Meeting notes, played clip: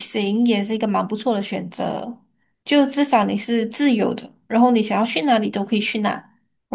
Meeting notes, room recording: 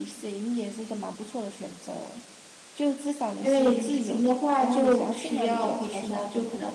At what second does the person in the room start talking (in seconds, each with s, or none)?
3.4 s